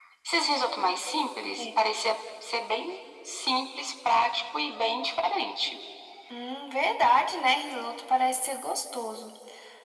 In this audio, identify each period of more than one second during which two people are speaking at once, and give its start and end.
none

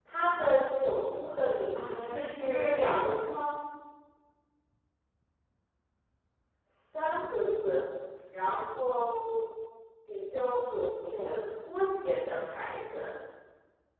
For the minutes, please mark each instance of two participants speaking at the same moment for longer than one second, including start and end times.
1.7-3.3

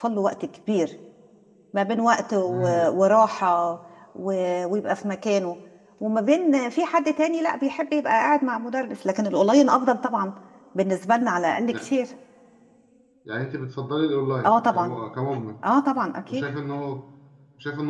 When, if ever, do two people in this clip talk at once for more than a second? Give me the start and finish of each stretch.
none

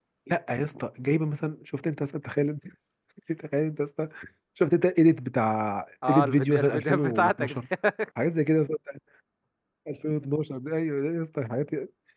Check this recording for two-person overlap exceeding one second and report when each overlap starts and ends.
6.1-7.6

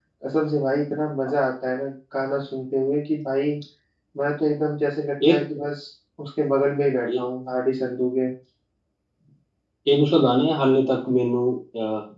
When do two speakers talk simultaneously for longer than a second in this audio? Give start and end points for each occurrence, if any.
none

